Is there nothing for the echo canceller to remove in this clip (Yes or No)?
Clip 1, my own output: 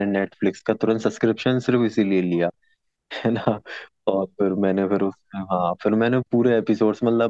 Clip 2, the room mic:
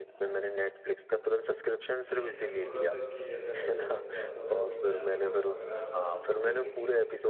No